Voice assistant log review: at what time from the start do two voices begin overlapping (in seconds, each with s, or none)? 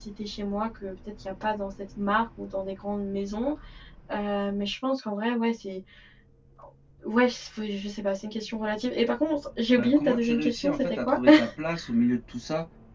9.8 s